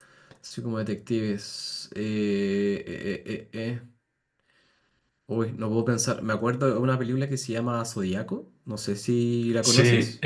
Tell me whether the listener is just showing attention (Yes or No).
No